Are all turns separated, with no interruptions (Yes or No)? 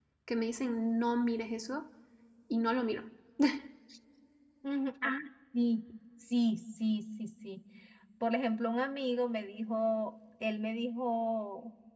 Yes